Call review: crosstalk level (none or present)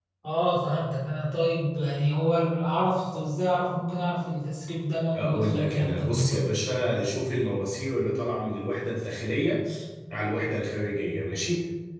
present